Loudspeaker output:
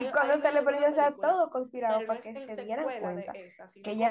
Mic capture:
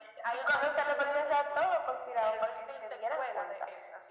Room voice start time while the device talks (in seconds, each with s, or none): none